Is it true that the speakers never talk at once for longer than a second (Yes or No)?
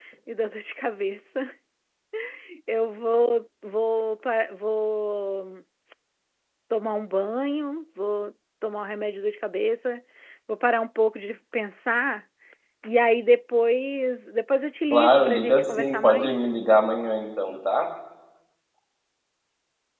No